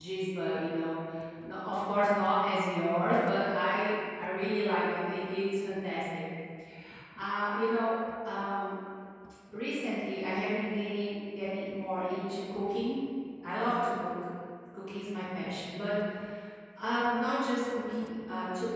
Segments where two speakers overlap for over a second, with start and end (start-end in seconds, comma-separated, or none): none